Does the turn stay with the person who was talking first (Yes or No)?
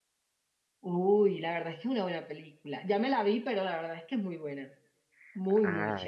No